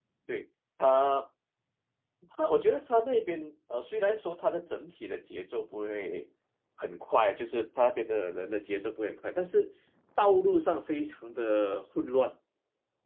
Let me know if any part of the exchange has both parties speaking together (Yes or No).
No